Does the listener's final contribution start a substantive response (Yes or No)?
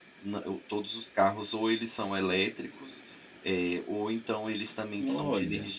No